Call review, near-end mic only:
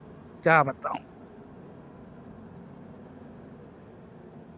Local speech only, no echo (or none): क्या बताऊं